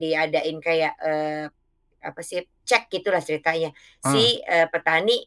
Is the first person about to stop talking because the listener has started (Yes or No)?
No